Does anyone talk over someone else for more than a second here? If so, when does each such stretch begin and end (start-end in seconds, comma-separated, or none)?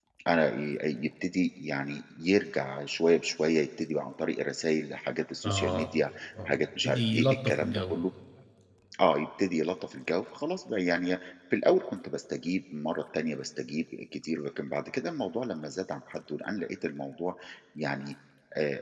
6.5-7.9